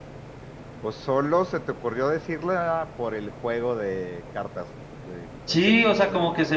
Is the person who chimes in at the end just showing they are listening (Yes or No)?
No